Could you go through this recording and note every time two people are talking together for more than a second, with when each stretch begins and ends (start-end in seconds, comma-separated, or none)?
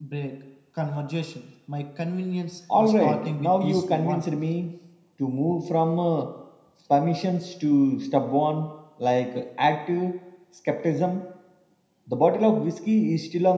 2.8-4.3